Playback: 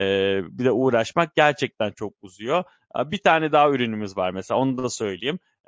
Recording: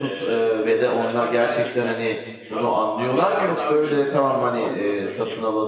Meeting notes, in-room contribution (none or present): present